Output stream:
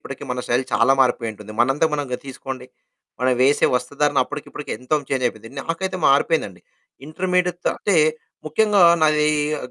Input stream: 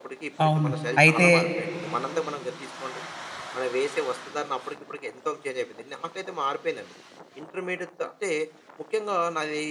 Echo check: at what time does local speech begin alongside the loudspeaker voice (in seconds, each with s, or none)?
0.4 s